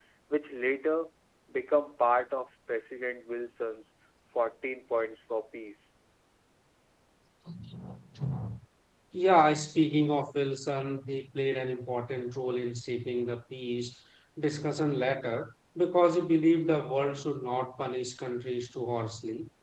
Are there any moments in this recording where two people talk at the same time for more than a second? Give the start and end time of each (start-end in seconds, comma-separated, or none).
none